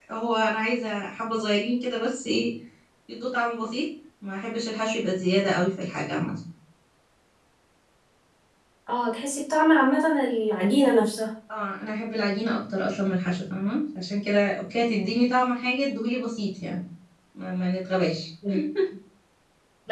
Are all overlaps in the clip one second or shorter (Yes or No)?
Yes